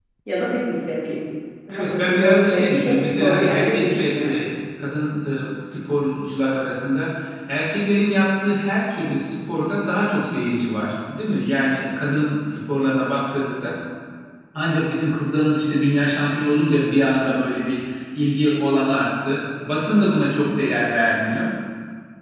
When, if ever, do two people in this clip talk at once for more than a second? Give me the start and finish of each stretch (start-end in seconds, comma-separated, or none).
1.7-4.0